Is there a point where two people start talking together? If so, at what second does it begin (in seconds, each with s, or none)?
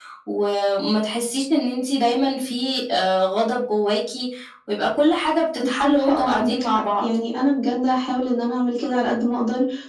5.6 s